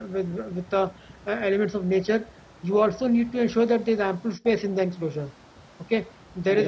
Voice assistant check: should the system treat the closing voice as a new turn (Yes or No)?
No